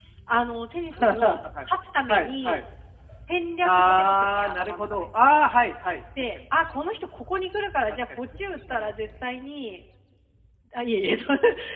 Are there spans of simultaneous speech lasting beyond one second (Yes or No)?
Yes